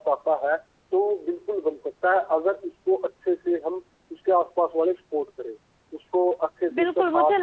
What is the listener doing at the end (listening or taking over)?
taking over